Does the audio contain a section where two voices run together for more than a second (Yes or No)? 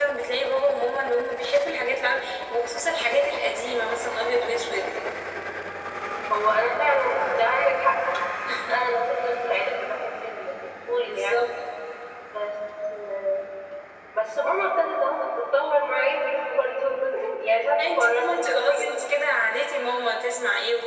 Yes